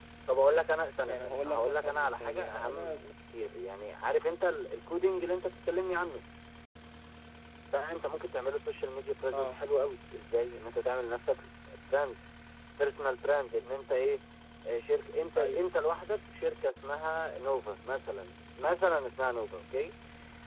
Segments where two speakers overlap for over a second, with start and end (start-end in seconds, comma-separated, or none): 1.1-2.9